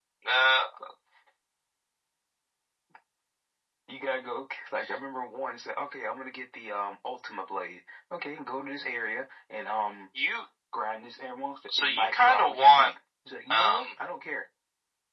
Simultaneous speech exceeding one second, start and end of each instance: 11.7-12.9

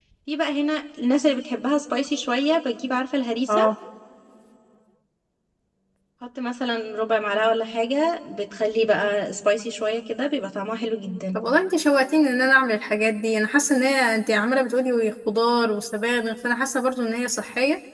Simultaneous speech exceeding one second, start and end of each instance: none

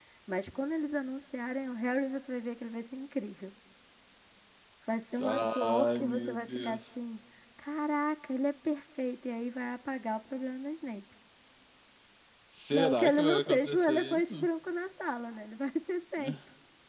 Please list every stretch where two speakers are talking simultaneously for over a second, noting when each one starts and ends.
5.2-6.8, 12.7-14.3

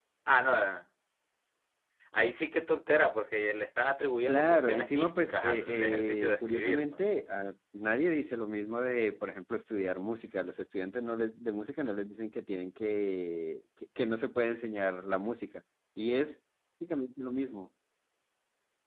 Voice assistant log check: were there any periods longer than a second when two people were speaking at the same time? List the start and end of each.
4.3-7.0

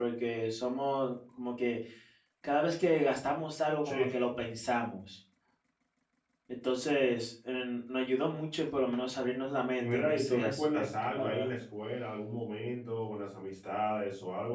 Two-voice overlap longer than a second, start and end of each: 9.8-11.5

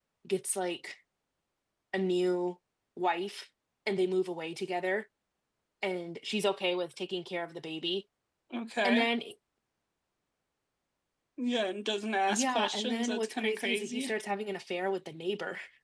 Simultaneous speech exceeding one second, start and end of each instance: 12.3-14.1

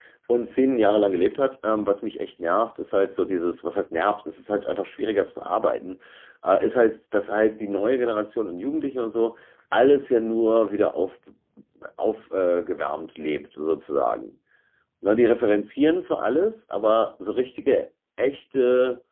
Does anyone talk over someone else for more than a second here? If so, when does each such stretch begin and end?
none

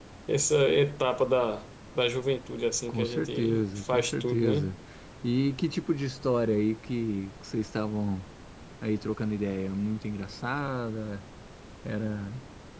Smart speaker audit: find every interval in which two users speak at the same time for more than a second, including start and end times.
2.9-4.7

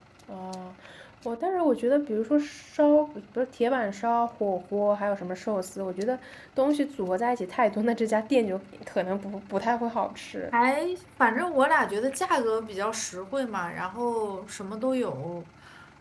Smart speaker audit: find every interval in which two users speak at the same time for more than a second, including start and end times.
none

